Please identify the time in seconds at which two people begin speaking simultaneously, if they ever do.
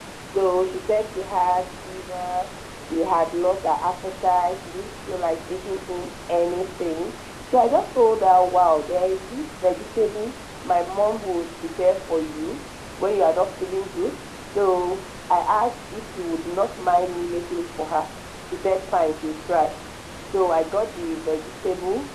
none

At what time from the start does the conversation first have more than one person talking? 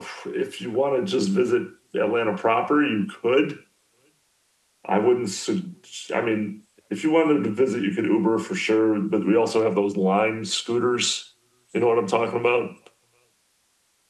none

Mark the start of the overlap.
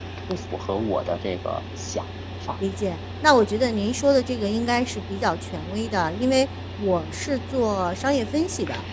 none

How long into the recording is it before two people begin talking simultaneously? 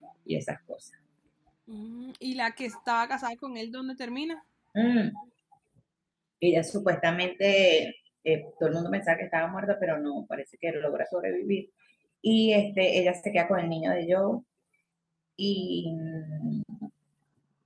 none

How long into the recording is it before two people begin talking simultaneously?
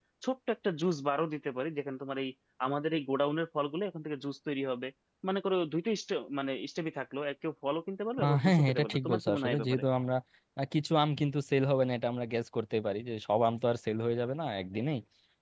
8 s

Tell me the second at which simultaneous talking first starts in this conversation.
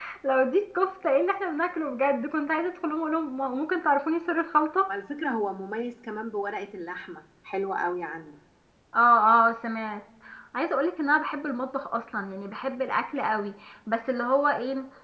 none

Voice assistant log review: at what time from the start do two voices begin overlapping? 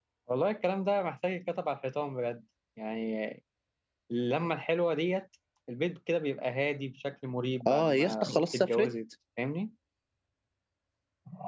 8 s

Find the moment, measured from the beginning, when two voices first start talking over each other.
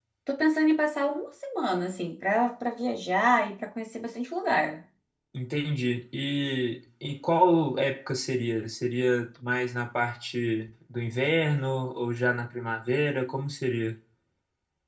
none

